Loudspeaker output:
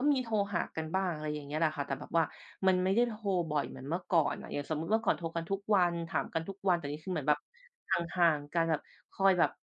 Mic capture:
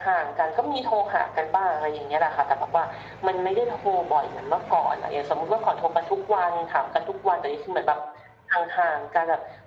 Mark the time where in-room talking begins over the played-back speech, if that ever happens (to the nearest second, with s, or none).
none